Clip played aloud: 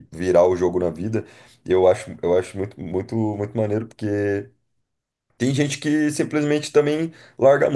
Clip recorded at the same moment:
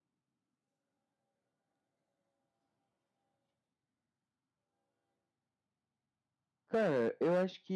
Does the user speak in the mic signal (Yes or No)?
Yes